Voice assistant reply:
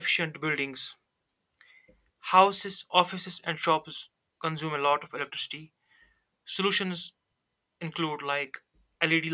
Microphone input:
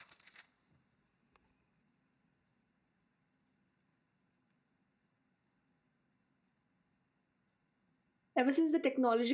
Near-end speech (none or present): present